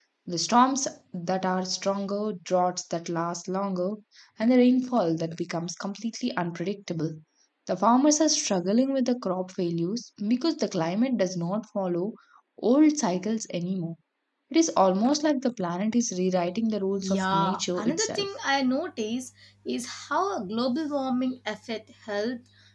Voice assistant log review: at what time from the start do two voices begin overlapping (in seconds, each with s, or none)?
17.0 s